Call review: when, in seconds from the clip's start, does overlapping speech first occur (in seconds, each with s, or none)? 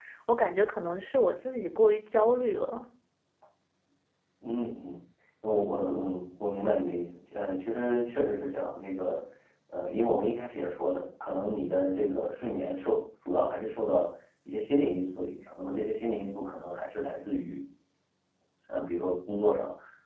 none